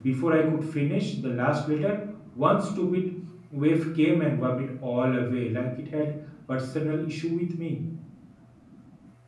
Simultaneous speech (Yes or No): No